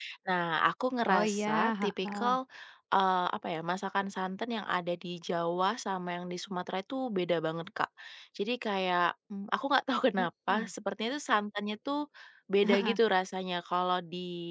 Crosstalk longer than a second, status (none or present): present